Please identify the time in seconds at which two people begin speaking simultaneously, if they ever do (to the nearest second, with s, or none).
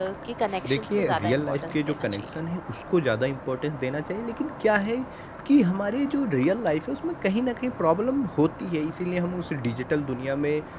1 s